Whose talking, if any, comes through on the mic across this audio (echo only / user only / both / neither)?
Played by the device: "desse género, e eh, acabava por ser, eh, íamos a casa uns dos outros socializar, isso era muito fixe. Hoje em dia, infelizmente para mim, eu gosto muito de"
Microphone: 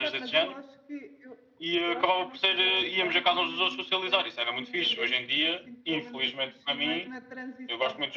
both